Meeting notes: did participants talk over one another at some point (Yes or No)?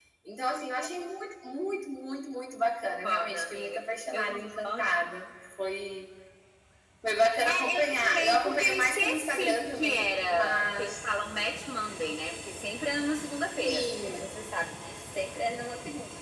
Yes